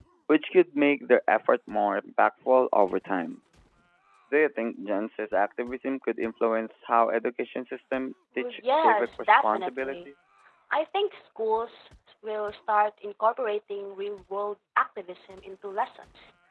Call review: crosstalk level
present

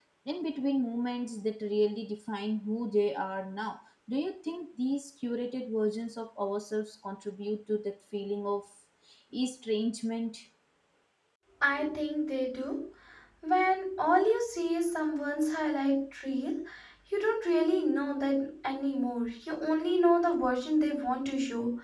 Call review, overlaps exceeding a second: none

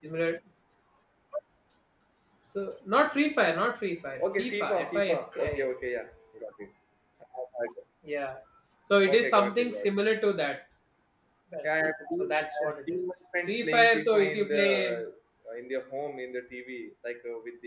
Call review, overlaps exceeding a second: present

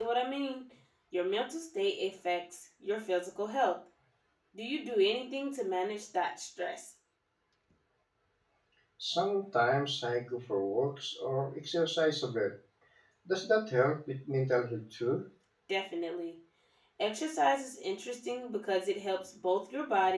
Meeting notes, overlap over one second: none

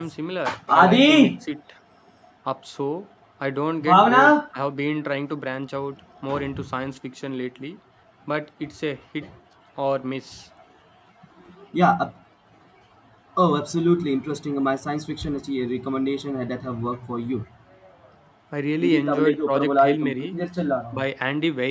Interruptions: present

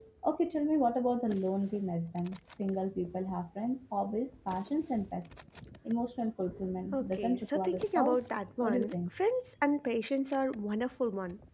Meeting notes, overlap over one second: present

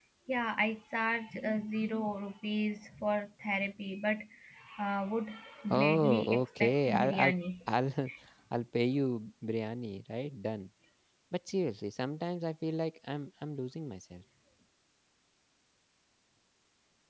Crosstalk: present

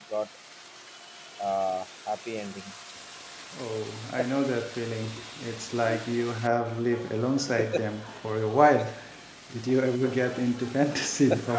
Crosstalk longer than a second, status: none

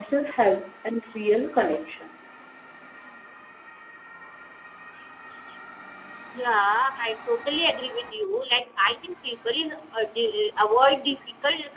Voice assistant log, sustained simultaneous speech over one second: none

